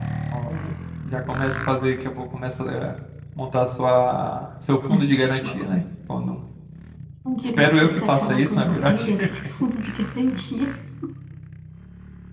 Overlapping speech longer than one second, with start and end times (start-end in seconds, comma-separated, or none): 7.4-9.1